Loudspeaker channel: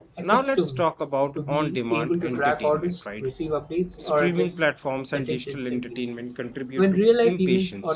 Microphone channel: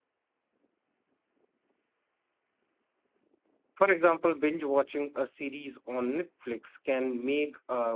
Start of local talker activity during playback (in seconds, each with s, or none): 3.7 s